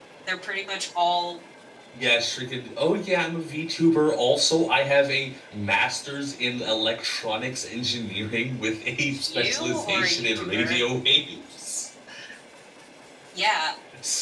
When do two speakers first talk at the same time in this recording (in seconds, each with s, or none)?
9.3 s